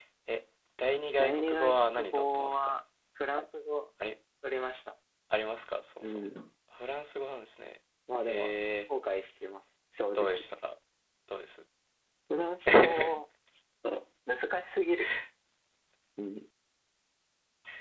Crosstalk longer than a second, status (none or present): present